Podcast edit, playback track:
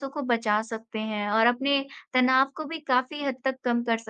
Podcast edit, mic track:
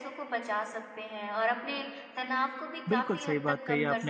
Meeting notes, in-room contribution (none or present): present